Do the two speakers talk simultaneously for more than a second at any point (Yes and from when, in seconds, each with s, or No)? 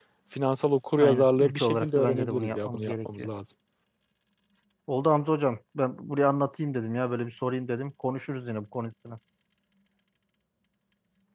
Yes, from 1.0 s